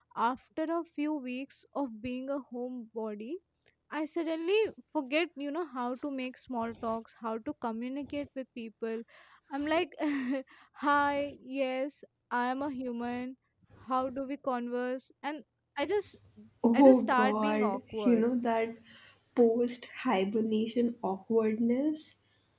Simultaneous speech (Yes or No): Yes